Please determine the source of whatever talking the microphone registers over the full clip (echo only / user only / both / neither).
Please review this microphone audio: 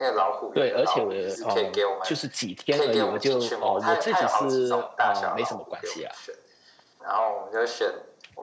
both